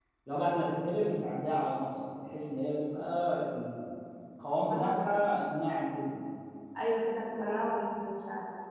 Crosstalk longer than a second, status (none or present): none